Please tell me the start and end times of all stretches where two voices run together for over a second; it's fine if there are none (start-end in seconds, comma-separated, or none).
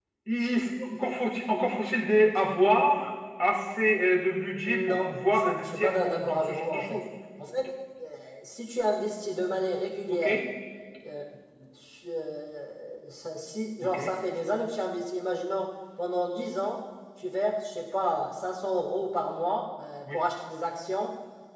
4.6-7.0